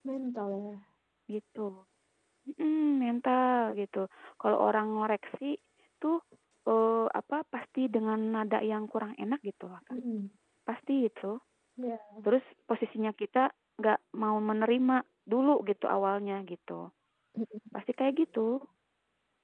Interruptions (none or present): none